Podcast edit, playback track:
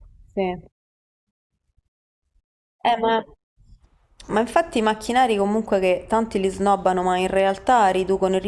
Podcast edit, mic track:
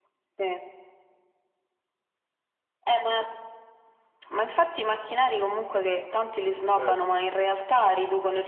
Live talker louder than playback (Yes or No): No